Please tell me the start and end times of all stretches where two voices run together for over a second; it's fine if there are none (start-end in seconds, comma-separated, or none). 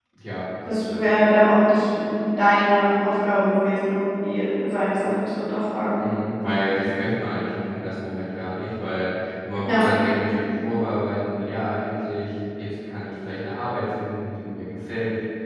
none